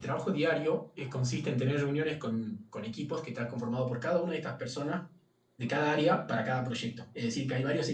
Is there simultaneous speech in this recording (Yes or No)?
No